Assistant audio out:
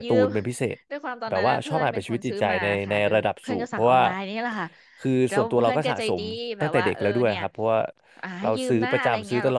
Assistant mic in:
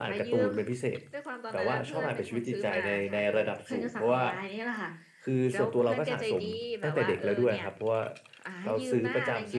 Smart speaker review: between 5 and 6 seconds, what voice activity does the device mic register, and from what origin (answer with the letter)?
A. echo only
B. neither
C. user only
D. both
A